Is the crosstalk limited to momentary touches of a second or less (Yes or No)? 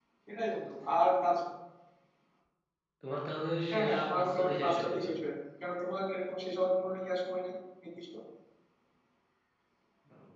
No